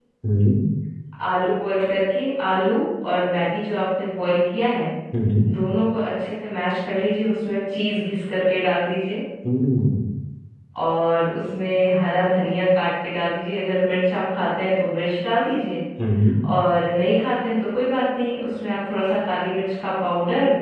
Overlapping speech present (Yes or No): No